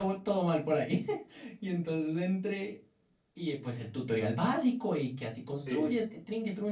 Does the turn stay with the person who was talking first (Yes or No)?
Yes